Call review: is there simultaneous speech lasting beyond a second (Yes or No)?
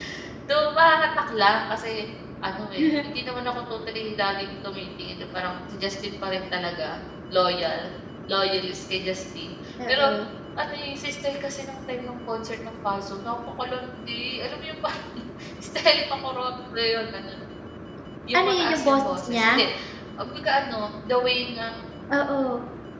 Yes